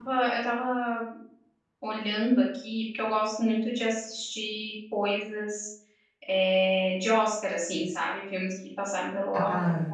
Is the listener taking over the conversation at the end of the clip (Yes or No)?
Yes